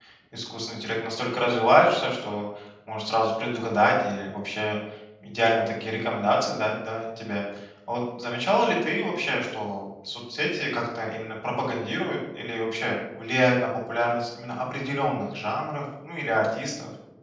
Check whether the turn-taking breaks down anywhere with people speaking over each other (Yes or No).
No